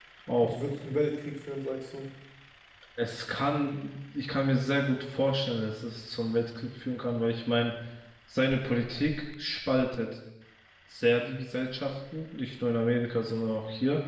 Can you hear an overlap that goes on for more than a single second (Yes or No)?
No